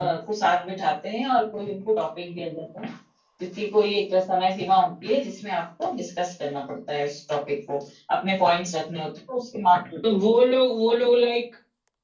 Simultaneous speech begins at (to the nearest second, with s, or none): none